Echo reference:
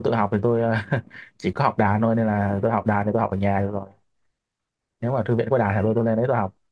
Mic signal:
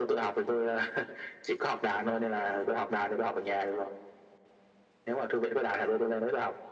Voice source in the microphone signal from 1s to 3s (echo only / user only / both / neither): echo only